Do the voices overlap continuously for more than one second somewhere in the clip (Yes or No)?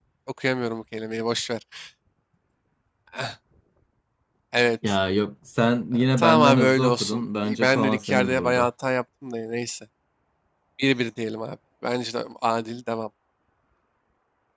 Yes